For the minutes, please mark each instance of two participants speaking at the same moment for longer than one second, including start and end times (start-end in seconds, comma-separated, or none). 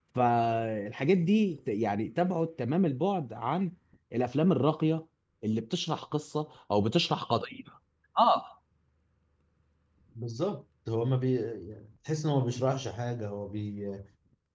none